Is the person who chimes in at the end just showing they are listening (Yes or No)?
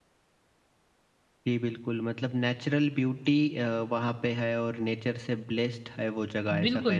No